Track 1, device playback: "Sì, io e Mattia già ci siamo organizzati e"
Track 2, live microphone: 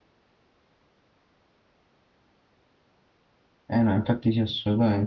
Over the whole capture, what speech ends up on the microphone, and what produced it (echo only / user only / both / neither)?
user only